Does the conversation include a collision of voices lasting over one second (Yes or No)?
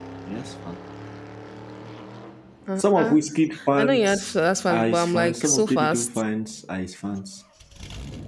Yes